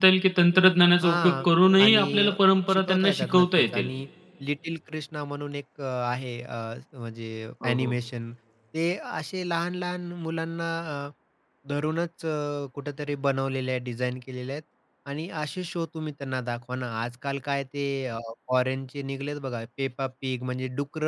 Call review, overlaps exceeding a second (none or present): present